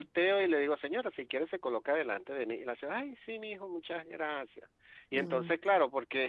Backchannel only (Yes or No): Yes